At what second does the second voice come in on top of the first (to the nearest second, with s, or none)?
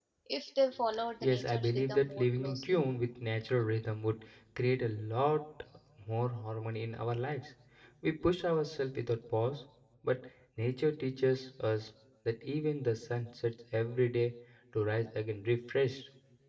1 s